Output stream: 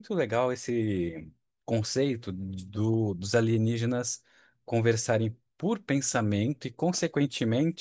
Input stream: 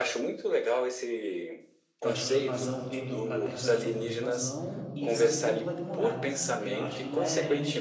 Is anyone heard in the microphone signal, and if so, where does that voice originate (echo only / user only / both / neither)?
both